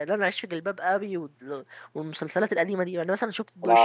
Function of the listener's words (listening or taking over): taking over